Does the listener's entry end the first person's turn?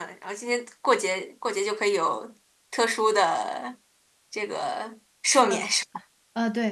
Yes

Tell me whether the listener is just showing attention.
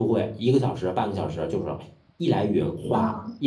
Yes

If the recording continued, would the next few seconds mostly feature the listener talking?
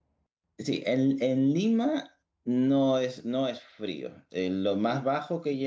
No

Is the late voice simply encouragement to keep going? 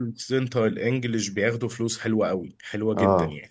No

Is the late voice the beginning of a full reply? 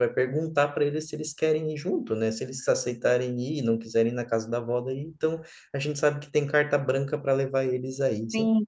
Yes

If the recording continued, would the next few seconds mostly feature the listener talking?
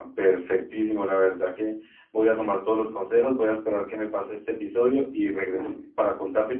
No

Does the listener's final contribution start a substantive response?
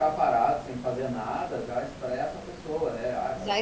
Yes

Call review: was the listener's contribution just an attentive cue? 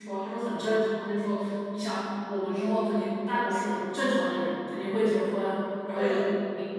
Yes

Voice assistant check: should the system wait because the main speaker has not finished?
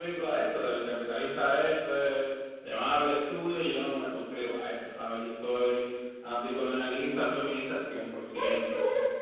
No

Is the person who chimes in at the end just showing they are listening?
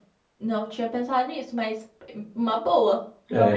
No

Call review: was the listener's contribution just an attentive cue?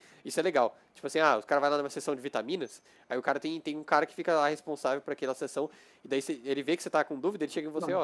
Yes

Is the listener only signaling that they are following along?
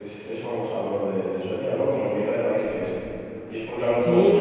No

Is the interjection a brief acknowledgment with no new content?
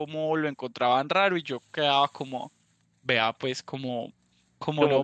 No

